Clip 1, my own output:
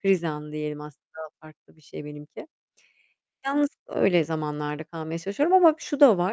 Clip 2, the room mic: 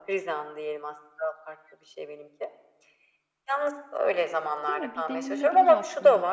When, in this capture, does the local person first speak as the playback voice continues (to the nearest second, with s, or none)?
5 s